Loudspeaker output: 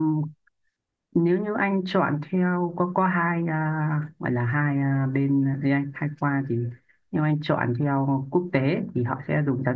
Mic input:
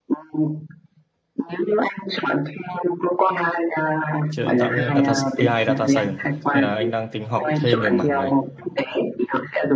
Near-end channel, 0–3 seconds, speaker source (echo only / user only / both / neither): echo only